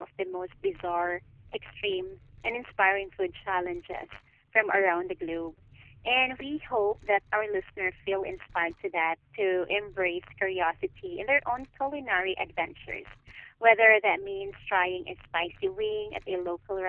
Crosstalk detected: No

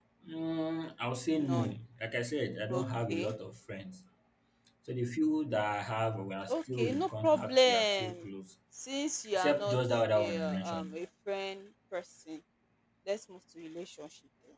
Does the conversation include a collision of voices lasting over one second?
Yes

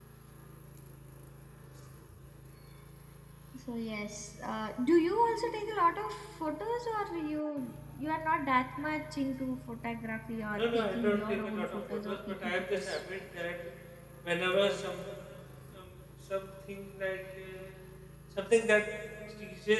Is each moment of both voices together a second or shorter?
No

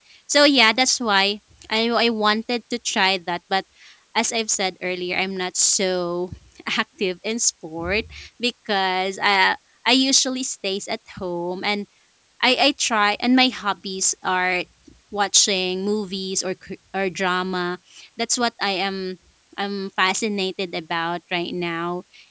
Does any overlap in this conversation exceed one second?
No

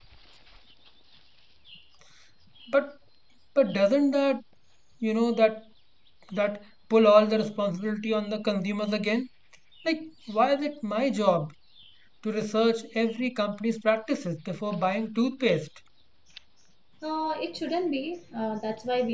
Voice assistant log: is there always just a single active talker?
Yes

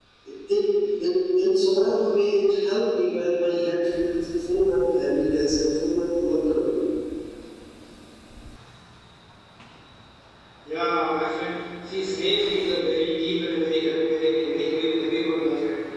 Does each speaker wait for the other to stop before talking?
Yes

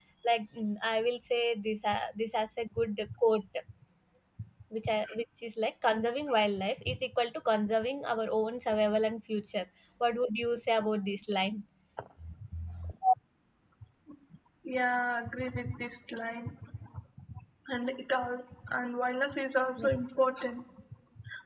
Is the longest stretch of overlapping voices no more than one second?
Yes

